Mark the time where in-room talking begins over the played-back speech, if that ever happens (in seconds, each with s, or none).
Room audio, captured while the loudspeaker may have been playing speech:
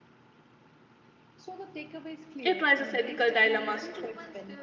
2.4 s